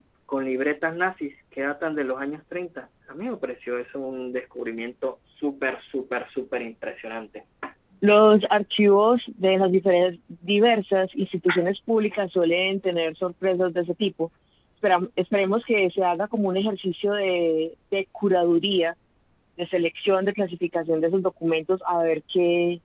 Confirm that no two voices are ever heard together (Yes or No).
Yes